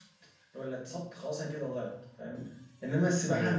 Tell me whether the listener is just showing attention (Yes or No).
Yes